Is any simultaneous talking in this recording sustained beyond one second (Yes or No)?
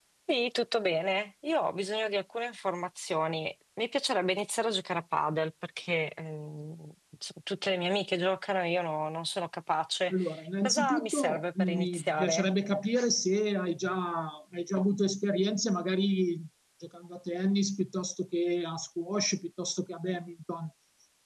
Yes